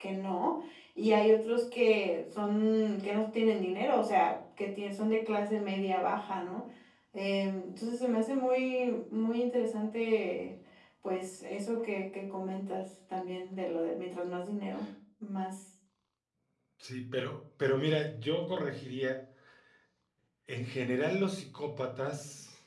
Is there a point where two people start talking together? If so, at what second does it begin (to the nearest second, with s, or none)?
none